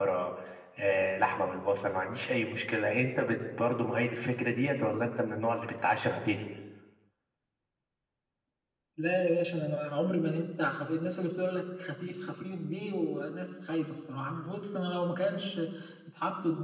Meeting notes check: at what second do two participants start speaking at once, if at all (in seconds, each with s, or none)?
none